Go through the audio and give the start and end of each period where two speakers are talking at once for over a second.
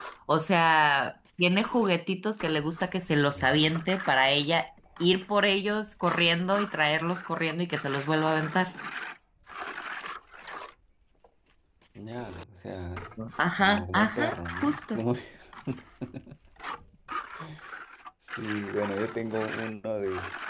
13.5-15.0

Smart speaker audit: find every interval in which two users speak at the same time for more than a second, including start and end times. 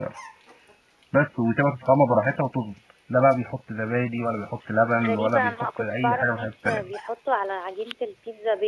5.0-6.9

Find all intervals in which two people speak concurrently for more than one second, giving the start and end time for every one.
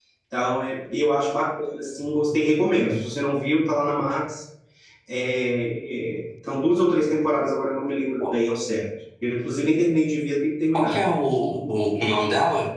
none

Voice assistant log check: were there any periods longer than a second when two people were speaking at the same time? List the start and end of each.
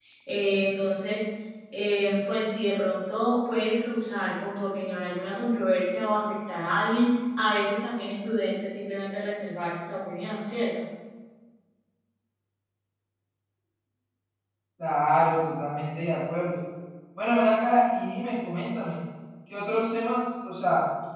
none

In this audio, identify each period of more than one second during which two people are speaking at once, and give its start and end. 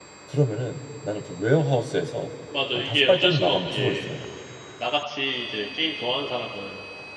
2.8-4.0

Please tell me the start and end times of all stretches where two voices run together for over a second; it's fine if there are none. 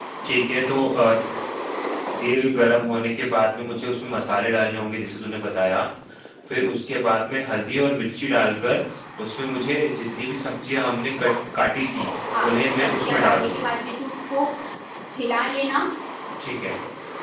12.4-13.6

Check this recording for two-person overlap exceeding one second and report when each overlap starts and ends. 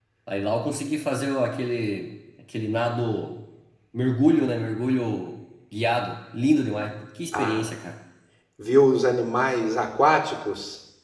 none

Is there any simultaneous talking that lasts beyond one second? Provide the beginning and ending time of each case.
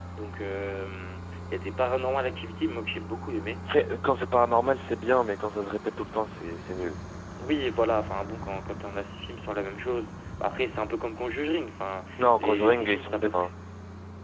12.2-13.5

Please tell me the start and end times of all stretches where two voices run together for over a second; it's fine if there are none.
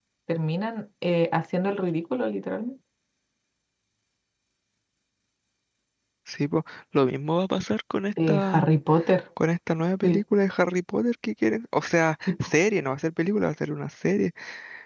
none

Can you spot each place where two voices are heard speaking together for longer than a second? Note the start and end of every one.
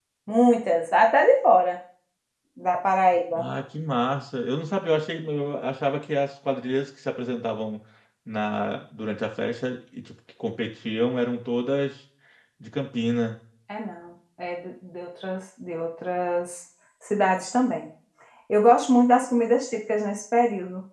none

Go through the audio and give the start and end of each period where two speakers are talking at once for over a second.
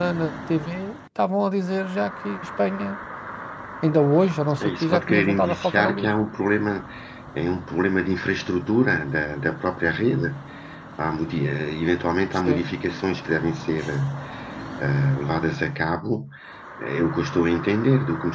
4.6-6.1

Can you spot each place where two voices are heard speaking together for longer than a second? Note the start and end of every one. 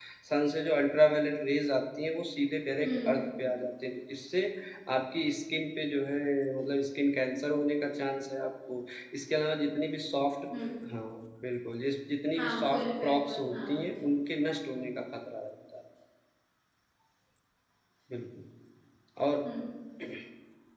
12.4-13.7

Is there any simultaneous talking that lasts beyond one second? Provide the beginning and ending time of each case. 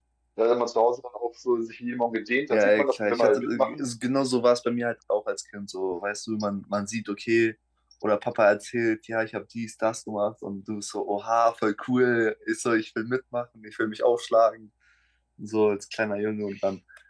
2.5-3.8

